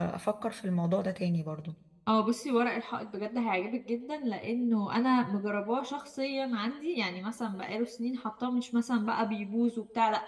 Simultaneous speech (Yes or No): No